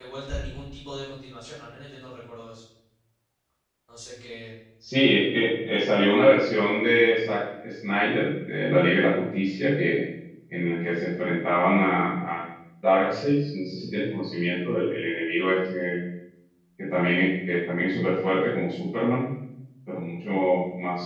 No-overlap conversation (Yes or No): Yes